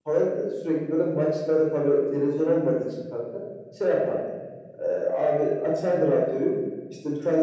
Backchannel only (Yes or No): Yes